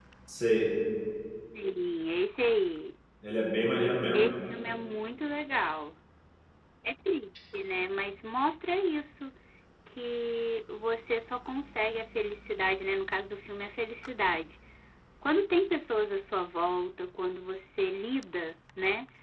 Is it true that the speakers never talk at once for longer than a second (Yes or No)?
Yes